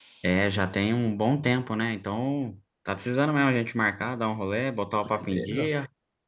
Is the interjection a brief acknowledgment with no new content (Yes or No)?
No